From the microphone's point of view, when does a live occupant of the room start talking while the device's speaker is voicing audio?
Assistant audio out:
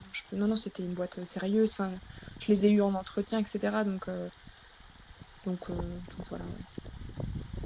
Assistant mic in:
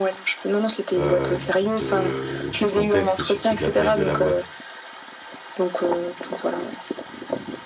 1.0 s

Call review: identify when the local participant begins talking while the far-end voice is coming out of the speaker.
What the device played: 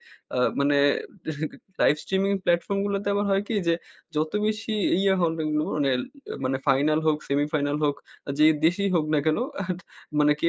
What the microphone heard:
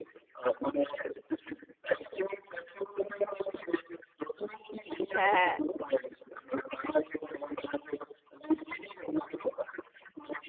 5.2 s

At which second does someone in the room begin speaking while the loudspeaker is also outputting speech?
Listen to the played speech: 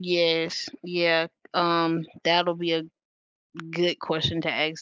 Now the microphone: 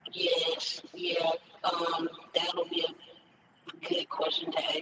none

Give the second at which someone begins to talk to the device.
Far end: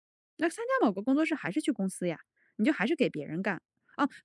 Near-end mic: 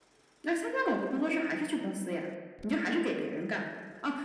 none

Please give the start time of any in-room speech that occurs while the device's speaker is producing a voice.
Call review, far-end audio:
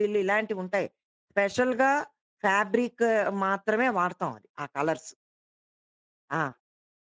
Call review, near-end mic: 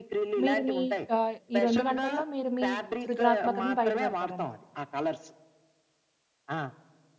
0.4 s

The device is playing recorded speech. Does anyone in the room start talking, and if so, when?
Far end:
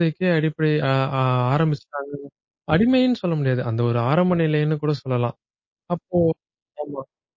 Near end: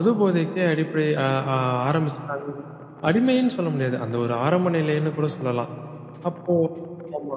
none

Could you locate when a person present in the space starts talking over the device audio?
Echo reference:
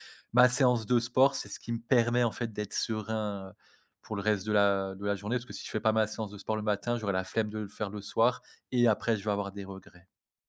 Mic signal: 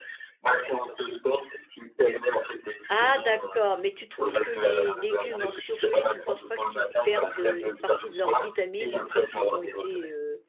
2.9 s

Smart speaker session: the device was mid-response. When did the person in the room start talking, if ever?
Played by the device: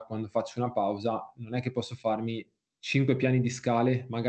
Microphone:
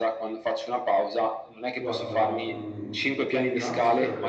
1.8 s

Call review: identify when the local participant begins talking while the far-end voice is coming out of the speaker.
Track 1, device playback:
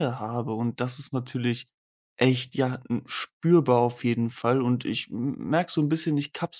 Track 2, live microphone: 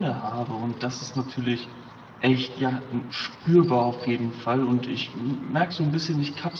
none

